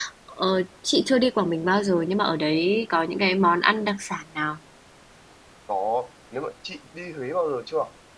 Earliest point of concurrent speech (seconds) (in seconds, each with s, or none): none